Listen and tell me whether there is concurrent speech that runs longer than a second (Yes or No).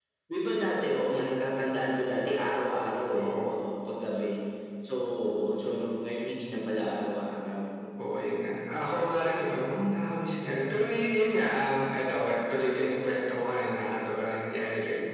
No